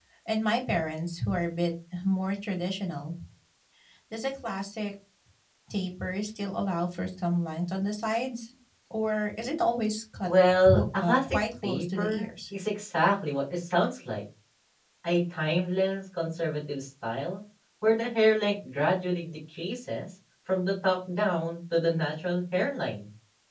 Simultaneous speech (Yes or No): Yes